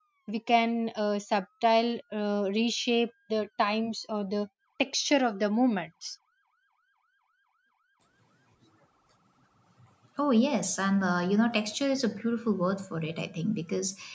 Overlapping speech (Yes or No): No